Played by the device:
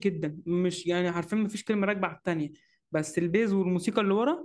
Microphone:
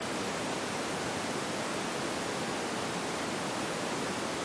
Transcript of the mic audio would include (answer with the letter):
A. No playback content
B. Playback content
A